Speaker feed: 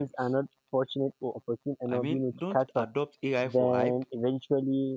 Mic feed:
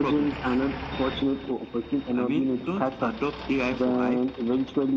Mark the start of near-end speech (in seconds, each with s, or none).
none